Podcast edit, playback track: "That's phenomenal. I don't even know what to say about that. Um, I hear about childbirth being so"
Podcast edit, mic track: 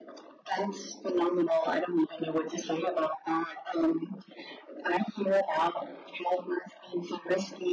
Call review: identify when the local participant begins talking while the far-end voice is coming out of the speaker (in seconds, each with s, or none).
none